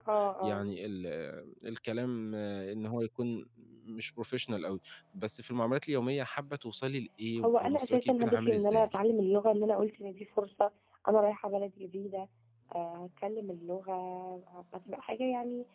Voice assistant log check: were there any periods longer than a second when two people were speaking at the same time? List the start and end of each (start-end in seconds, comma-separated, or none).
7.4-8.9